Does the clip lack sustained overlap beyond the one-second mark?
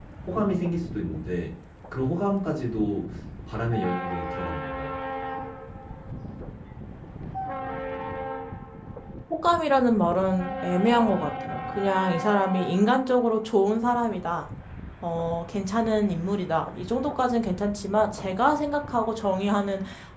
Yes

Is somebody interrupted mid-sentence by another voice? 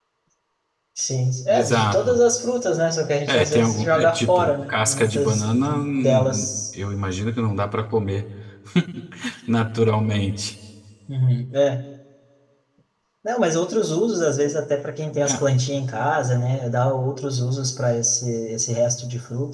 Yes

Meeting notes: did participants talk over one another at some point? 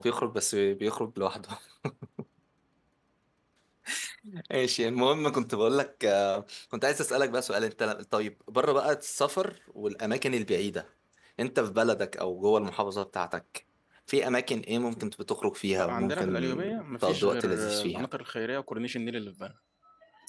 Yes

